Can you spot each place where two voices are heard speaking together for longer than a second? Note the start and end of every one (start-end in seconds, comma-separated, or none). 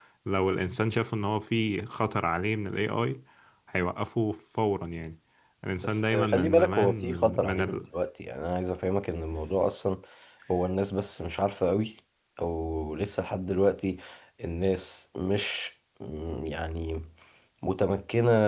5.8-7.8